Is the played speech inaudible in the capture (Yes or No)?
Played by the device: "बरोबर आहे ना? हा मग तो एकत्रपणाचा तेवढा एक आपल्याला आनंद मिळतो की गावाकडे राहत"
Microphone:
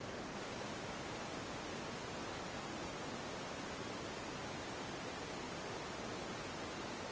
Yes